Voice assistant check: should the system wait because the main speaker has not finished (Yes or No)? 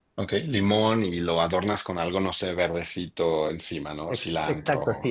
No